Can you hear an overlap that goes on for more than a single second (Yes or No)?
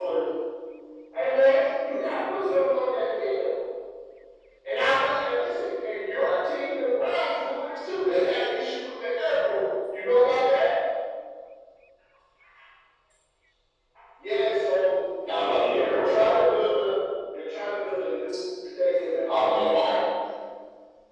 Yes